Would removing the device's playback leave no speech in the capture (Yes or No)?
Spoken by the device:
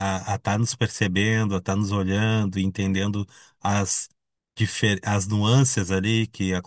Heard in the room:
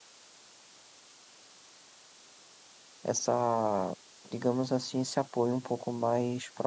No